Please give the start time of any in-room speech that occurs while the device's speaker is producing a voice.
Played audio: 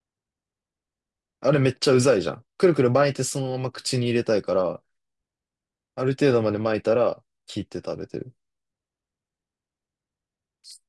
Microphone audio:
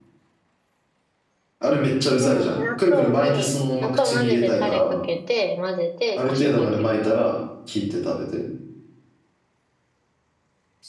2.2 s

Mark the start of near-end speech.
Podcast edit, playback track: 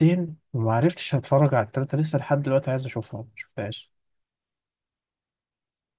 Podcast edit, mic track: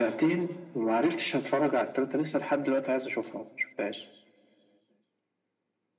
none

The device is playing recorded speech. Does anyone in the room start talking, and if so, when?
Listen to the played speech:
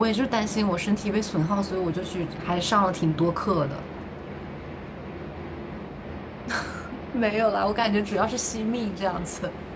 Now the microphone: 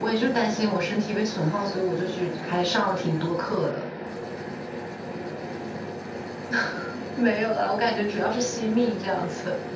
none

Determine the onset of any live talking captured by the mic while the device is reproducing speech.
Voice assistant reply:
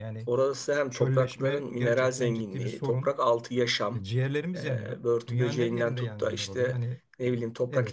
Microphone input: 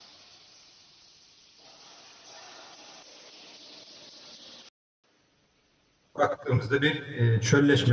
6.2 s

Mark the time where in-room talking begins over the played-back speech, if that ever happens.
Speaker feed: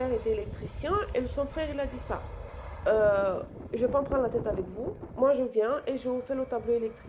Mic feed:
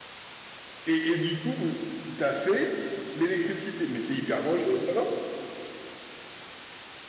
0.8 s

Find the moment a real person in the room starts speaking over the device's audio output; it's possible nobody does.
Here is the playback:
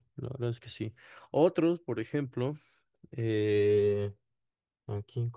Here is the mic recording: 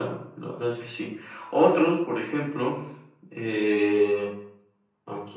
none

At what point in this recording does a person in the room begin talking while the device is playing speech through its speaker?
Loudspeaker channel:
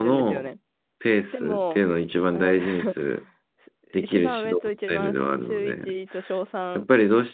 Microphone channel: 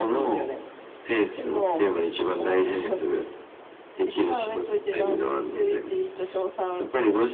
none

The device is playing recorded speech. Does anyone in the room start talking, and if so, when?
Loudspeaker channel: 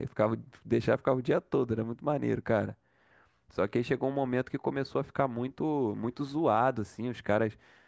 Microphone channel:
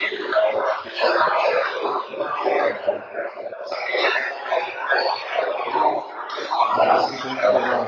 6.9 s

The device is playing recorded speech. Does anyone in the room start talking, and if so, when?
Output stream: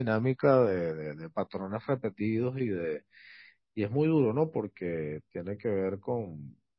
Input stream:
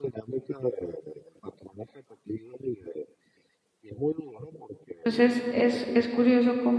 5.0 s

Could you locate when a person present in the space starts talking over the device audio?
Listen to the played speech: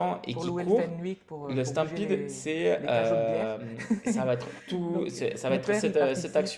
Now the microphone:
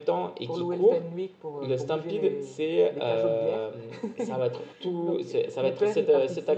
none

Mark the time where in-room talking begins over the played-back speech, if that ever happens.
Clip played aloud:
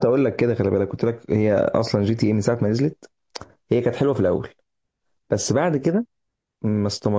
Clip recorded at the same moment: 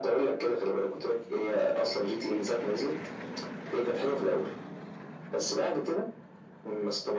none

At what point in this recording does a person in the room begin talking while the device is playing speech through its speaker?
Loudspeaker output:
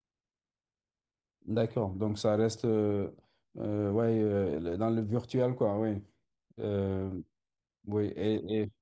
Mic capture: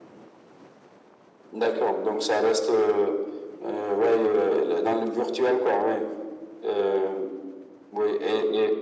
none

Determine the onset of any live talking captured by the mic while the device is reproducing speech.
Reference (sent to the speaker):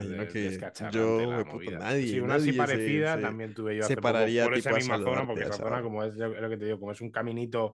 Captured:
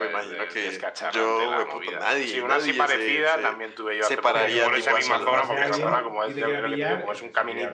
4.3 s

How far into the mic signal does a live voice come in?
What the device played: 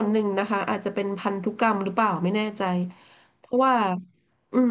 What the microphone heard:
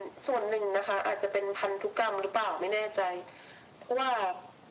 none

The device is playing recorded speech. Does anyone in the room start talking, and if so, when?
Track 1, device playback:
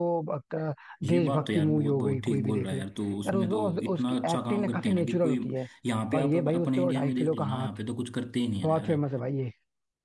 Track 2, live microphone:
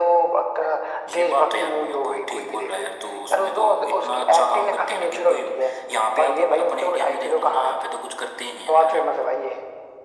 none

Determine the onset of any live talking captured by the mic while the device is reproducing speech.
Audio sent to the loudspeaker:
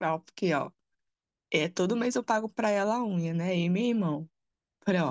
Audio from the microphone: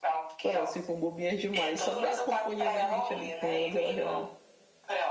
0.4 s

